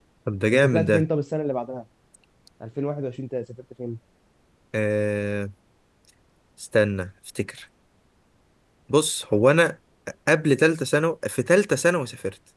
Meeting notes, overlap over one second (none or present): none